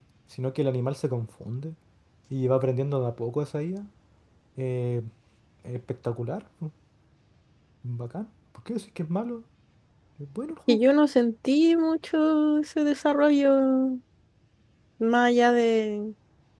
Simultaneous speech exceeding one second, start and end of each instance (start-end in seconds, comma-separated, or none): none